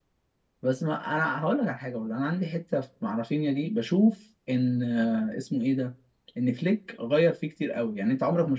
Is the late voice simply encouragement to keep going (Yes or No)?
Yes